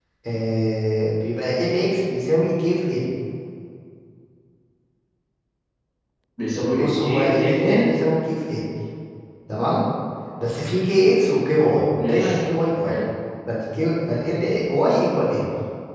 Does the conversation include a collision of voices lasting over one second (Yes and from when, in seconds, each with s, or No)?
Yes, from 6.8 s